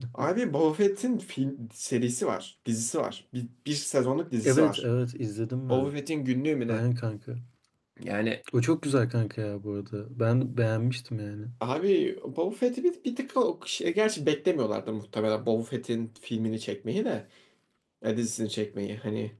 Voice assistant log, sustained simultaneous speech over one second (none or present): none